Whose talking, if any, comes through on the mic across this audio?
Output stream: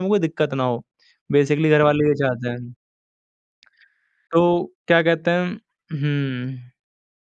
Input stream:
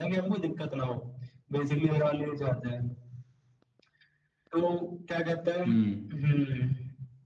both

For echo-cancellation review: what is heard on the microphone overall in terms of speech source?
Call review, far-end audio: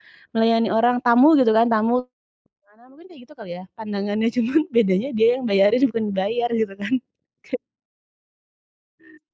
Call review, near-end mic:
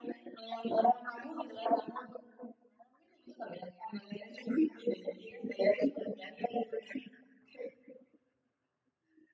echo only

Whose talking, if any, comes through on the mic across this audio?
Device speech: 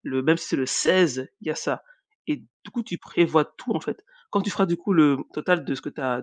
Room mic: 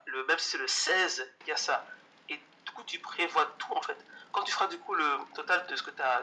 echo only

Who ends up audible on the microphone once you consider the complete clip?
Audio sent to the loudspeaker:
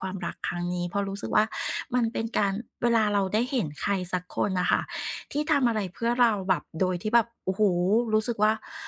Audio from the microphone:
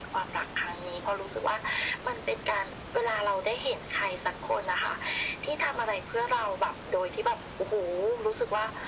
echo only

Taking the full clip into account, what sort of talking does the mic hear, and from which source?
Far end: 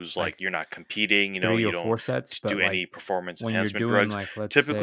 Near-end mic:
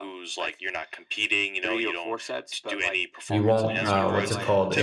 both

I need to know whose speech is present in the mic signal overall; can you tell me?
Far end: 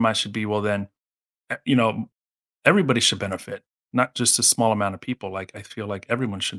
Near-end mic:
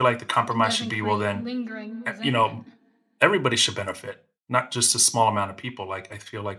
both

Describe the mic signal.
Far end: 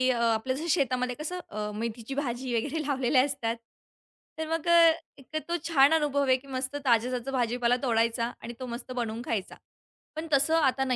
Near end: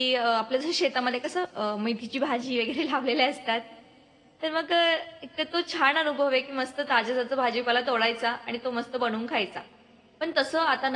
echo only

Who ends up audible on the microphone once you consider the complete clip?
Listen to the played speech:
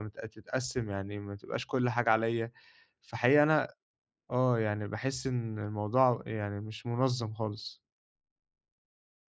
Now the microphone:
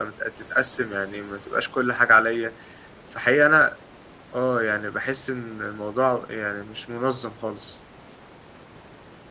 echo only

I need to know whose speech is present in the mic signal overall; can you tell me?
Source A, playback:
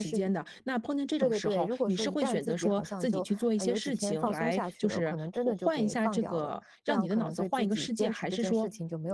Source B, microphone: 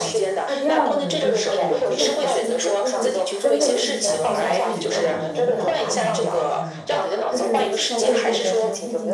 both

